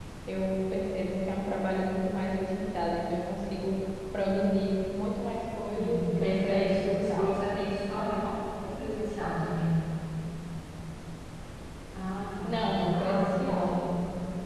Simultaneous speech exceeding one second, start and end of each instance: 5.8-7.4, 12.4-13.8

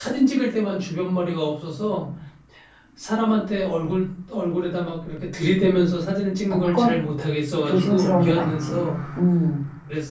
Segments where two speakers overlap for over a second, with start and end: 7.7-8.9

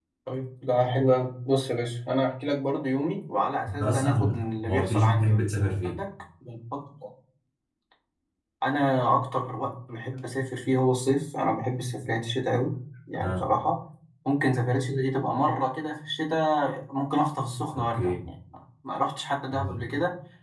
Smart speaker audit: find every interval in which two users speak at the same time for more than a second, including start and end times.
3.7-5.4

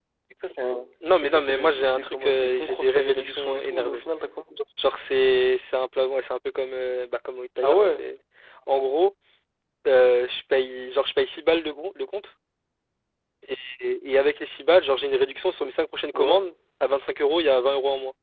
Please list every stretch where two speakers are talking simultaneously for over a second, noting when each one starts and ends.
1.2-4.0

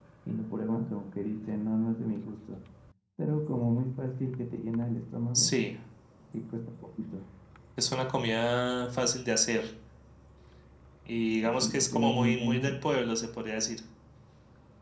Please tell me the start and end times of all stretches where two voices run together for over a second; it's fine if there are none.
11.5-12.7

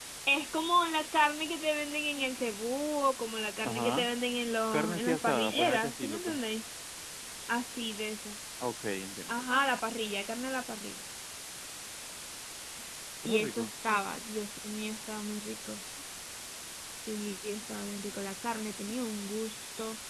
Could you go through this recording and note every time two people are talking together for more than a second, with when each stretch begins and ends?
4.7-6.4

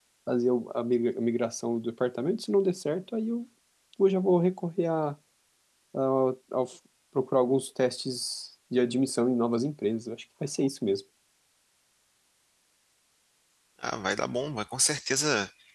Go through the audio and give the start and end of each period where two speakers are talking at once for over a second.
none

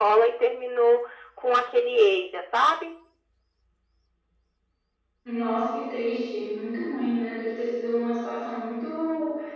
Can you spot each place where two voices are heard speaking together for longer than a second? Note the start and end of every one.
none

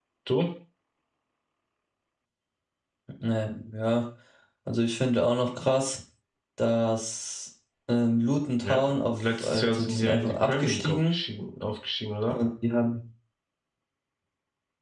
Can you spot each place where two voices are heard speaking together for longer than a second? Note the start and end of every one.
8.6-11.2

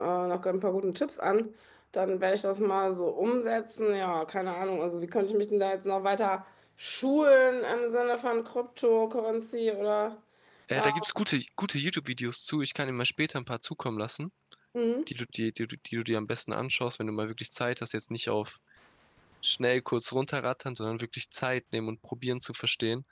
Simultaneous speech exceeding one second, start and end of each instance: none

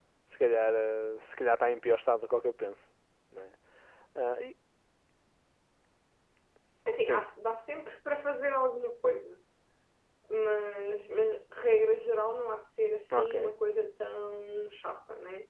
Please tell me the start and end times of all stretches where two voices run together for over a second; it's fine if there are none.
none

